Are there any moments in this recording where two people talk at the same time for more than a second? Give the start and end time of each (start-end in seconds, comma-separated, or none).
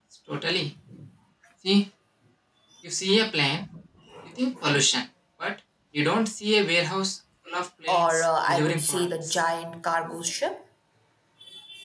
7.9-9.4